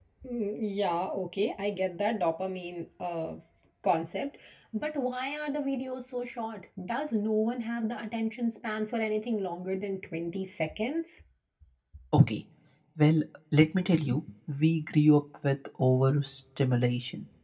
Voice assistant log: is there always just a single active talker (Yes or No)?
Yes